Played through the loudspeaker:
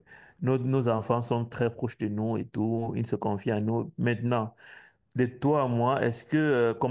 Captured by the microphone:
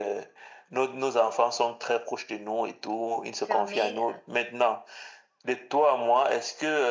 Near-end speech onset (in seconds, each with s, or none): 3.4 s